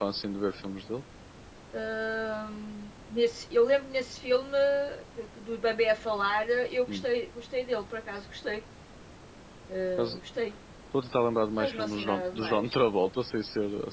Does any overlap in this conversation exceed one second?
Yes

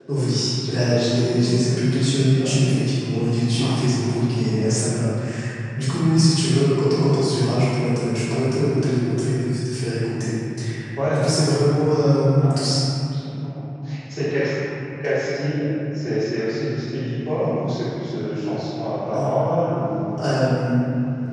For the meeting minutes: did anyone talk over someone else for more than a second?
Yes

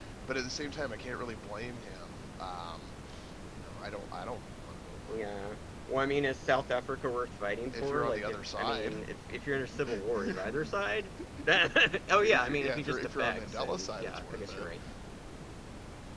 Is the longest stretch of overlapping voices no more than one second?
No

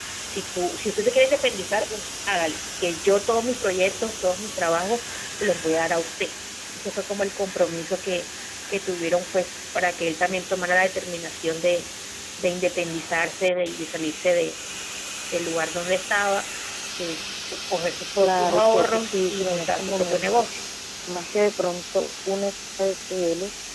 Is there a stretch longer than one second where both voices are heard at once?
Yes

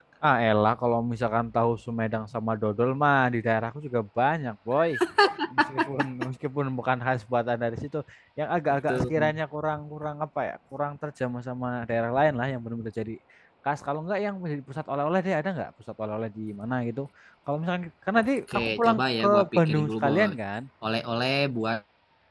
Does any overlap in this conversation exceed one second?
Yes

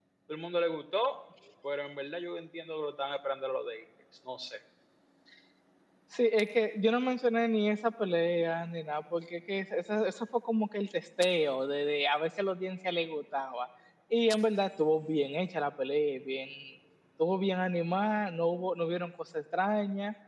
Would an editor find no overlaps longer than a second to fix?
Yes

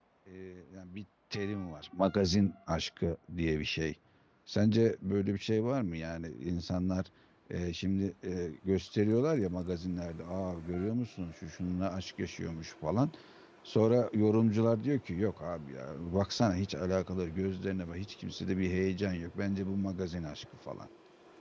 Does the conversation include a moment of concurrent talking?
No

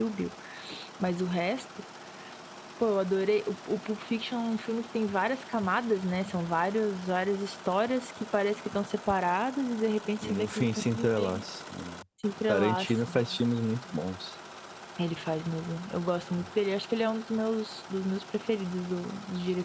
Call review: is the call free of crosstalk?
No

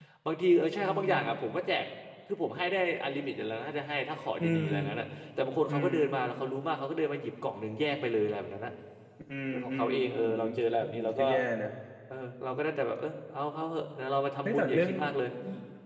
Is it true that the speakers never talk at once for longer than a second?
No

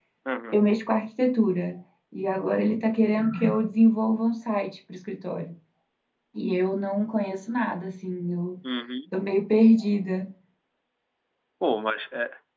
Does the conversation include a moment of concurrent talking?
No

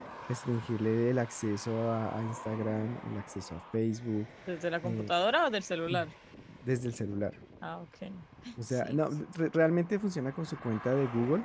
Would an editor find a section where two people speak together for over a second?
No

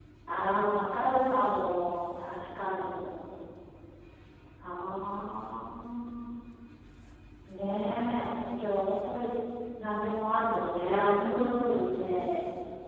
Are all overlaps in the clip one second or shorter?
Yes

